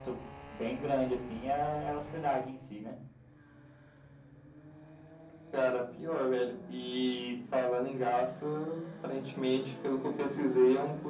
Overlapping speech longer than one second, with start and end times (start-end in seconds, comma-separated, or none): none